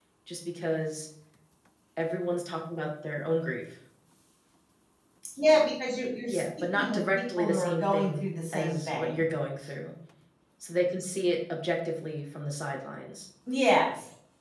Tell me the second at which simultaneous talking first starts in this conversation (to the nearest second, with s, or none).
6 s